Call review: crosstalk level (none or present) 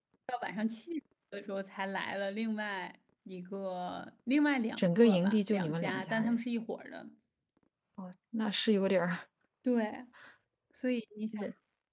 present